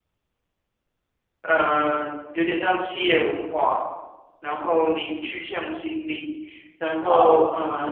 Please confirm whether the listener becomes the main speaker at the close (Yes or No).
No